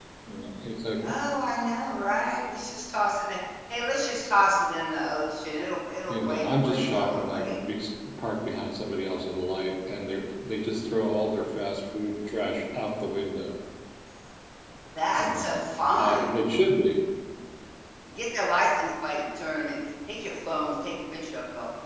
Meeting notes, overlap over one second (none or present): present